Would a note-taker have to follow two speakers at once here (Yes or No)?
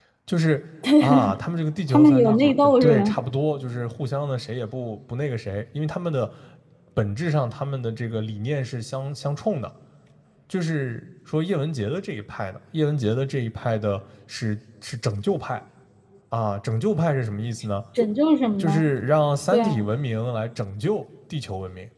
Yes